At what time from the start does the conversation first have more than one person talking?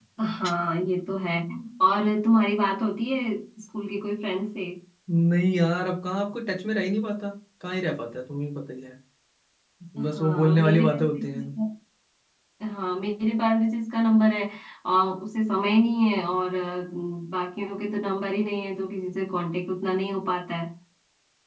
10 s

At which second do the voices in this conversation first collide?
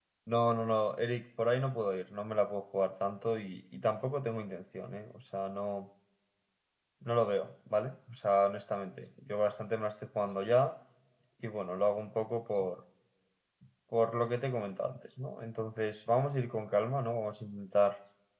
none

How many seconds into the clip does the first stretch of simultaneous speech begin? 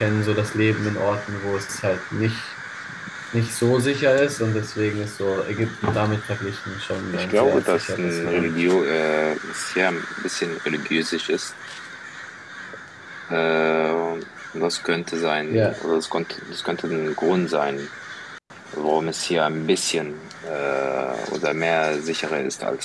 7 s

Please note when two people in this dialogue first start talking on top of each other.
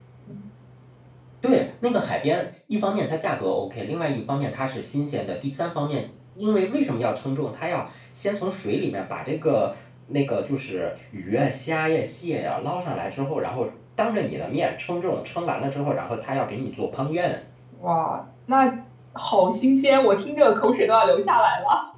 none

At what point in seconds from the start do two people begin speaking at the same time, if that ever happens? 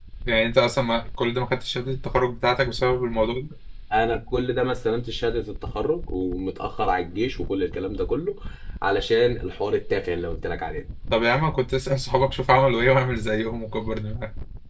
none

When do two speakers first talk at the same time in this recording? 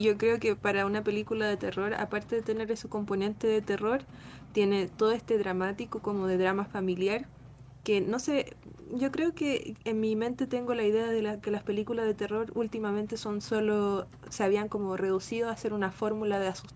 none

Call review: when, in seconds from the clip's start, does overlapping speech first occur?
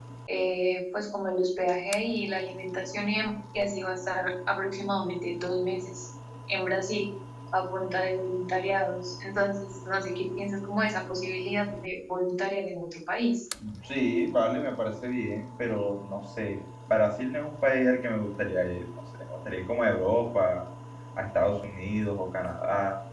none

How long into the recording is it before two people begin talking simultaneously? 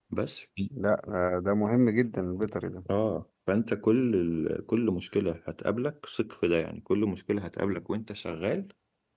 none

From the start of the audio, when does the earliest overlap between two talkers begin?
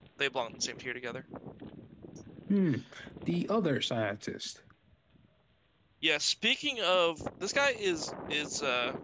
none

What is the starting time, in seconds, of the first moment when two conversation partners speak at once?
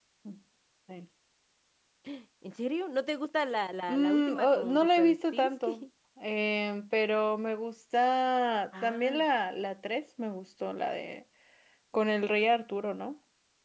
4 s

